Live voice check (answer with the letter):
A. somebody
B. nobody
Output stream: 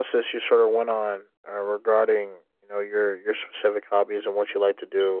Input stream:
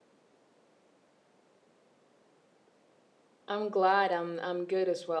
A